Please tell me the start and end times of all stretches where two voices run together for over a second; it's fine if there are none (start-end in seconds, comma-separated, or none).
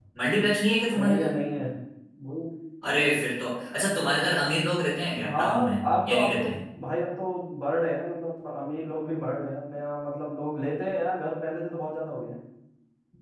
5.2-6.6